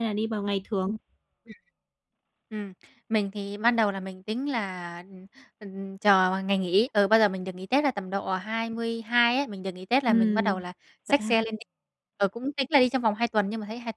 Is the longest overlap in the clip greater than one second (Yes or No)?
No